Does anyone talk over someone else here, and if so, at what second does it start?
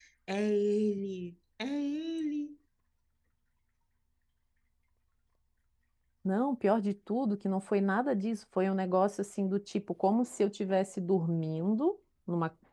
none

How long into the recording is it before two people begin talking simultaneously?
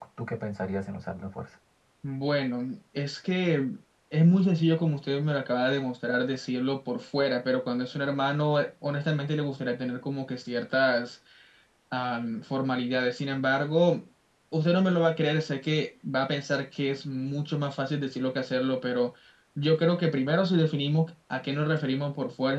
none

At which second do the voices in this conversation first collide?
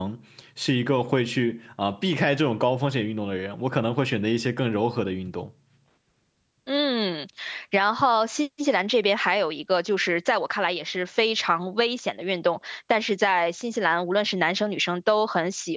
none

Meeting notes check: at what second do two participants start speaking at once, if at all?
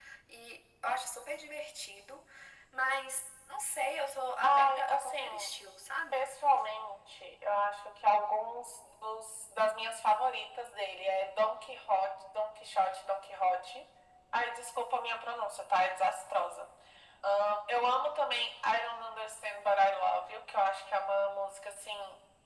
4.4 s

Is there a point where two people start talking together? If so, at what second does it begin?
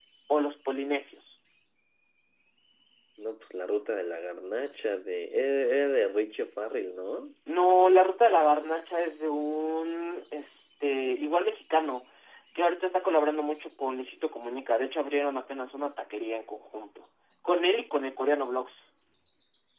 none

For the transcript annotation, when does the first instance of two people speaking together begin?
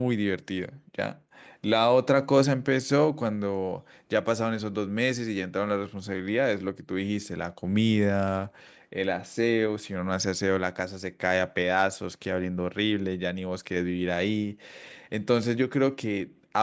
none

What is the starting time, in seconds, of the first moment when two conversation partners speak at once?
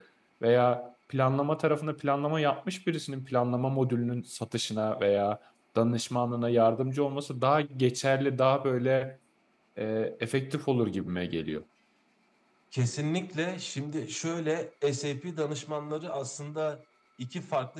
none

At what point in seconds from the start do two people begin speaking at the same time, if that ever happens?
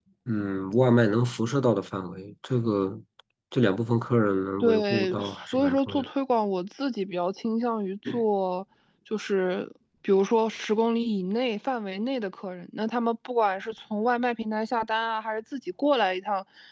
4.6 s

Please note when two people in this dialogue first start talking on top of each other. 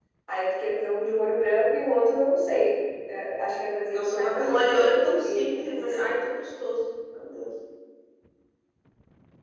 3.9 s

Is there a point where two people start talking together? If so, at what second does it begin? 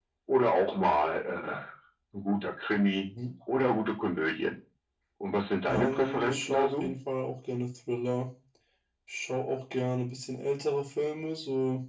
5.7 s

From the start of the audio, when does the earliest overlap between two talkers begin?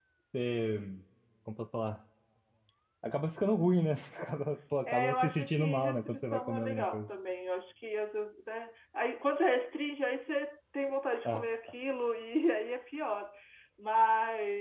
4.9 s

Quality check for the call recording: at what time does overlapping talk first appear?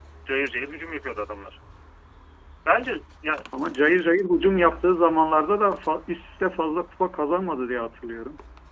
none

